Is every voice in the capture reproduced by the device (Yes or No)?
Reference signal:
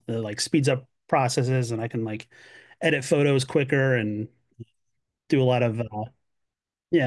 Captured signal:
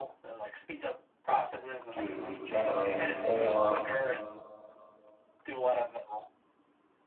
No